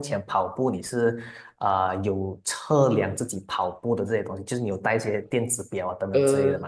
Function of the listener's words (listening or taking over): taking over